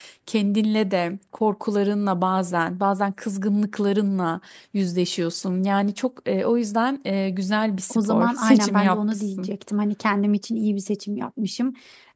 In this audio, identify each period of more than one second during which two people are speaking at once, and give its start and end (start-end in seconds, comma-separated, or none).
7.9-9.5